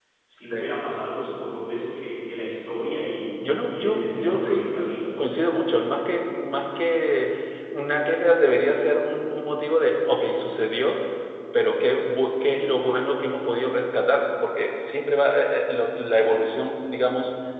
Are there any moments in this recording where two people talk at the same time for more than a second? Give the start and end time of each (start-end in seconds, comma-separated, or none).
3.6-5.1